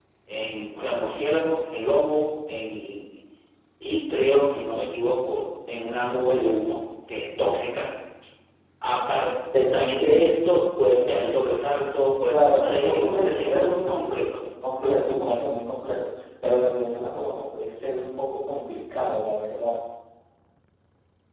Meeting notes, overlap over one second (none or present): present